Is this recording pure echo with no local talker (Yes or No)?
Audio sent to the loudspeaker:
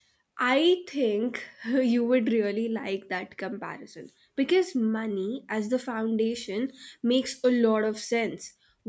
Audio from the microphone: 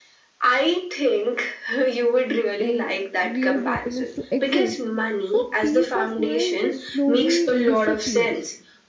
No